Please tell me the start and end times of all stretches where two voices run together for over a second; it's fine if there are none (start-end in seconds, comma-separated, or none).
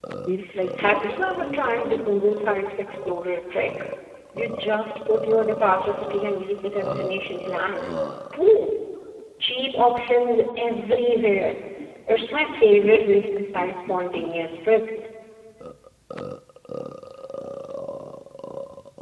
0.8-2.2